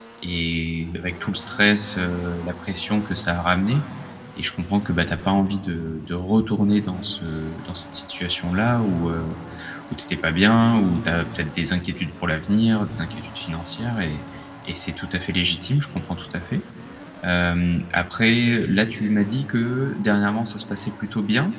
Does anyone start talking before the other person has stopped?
No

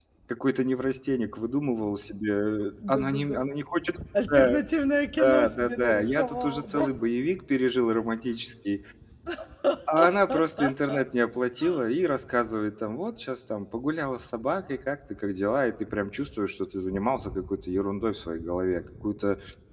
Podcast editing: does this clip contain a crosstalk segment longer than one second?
Yes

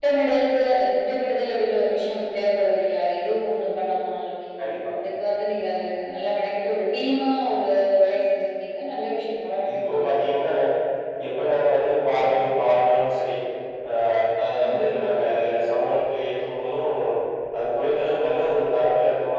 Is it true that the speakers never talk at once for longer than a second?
Yes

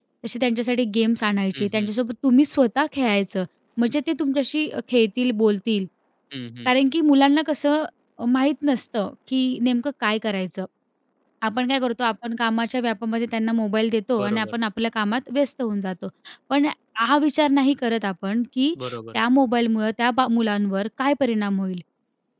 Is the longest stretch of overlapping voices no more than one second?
Yes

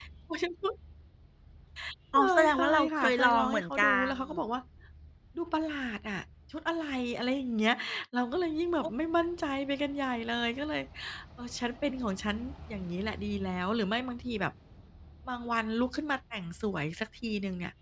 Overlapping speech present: Yes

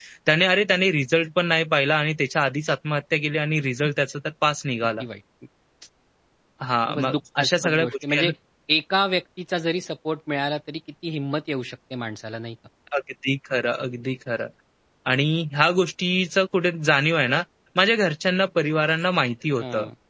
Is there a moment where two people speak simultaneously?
Yes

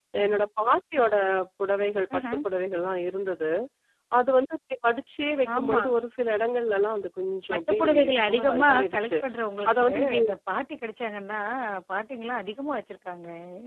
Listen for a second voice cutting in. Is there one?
Yes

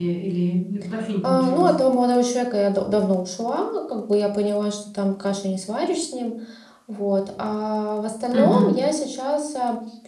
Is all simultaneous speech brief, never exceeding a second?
Yes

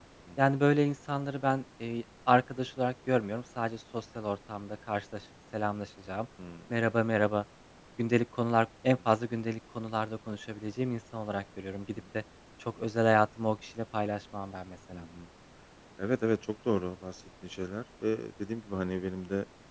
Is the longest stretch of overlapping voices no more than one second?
Yes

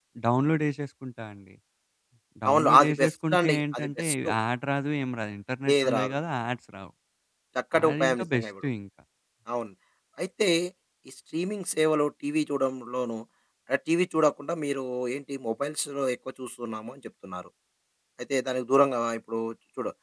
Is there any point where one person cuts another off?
Yes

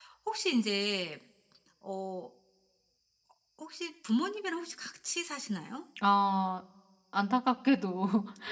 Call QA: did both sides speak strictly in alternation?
Yes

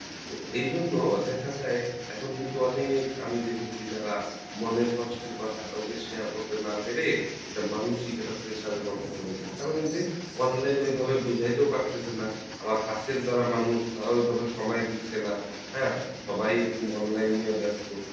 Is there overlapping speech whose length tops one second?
No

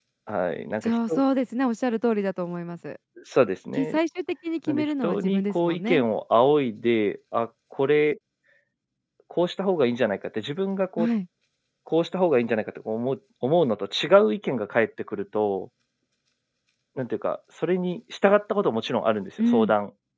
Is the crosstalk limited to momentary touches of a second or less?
No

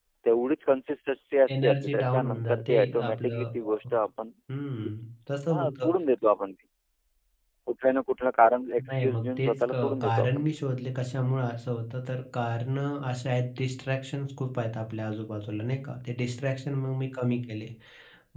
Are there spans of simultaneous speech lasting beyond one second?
Yes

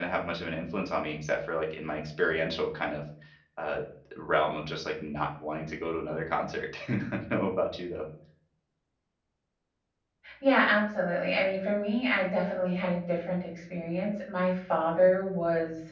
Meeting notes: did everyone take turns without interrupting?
Yes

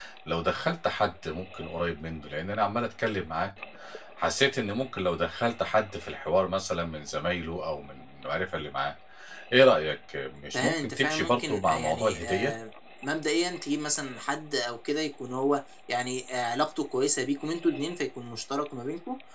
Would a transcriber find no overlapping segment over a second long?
No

